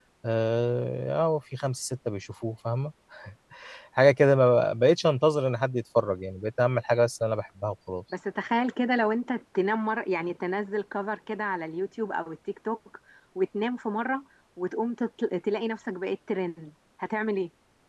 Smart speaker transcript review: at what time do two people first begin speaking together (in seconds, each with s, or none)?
none